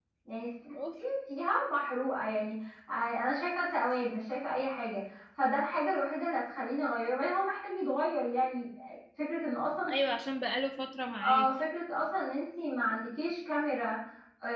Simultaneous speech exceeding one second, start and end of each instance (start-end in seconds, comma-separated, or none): none